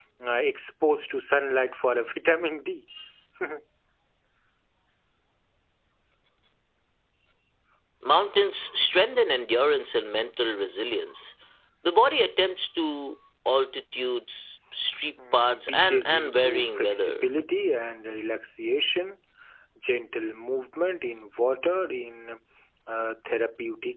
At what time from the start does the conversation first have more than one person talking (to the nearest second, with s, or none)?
15 s